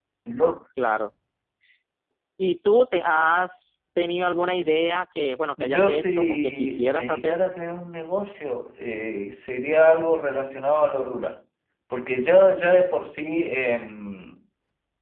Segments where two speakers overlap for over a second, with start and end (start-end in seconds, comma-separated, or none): 5.6-7.3